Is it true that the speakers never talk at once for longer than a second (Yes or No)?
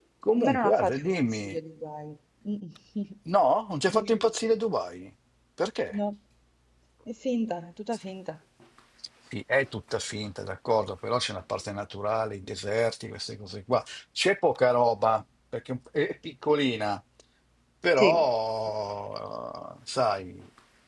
No